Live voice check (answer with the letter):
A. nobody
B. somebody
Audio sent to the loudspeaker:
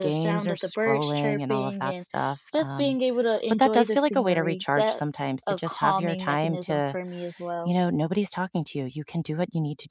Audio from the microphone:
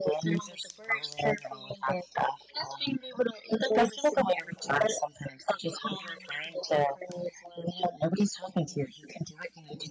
A